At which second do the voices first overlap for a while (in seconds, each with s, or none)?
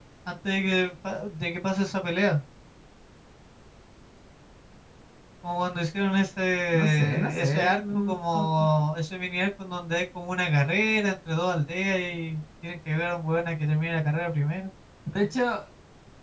6.7 s